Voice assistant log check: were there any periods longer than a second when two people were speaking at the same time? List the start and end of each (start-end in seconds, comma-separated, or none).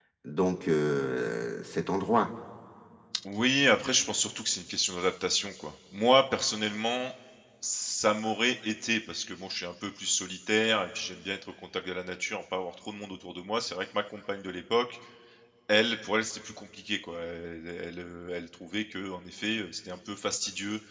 none